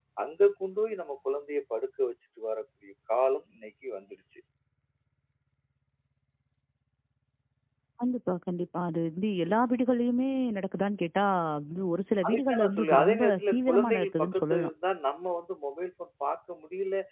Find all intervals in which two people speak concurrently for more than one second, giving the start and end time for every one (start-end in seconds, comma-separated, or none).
12.3-14.7